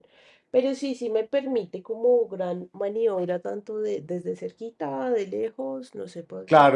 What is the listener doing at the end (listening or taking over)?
taking over